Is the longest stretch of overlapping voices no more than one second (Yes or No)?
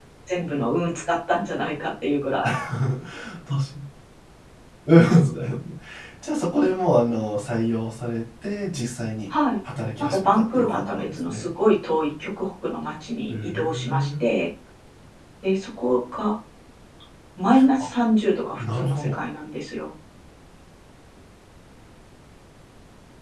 No